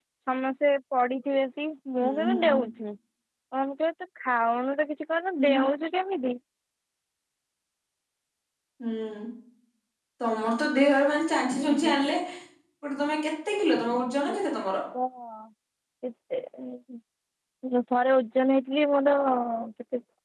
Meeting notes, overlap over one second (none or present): none